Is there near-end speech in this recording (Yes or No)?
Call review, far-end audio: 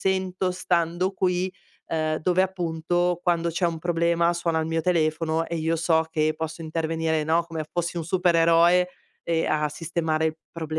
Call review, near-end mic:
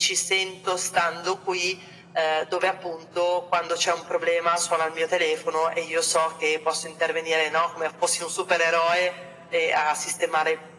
No